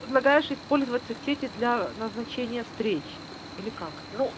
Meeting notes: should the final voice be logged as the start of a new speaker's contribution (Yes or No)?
Yes